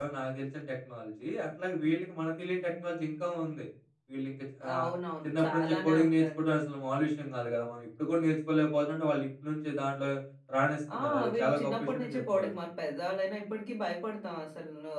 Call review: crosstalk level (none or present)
present